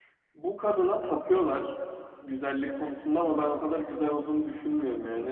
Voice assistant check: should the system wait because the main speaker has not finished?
Yes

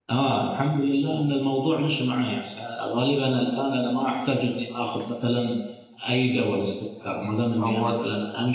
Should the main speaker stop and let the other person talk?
No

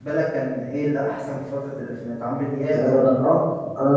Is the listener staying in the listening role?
No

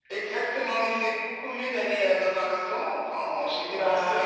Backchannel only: No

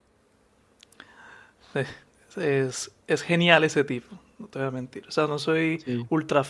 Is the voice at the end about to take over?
No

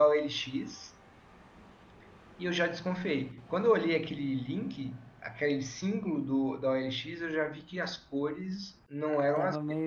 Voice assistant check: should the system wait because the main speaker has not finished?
Yes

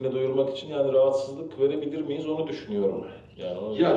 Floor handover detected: Yes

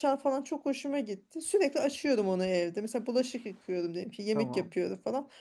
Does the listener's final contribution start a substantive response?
No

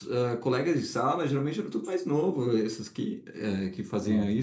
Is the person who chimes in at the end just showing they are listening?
Yes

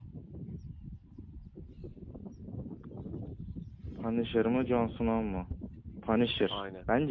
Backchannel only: Yes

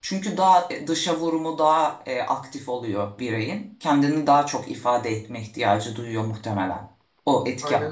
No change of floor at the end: No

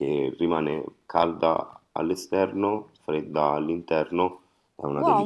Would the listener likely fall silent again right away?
No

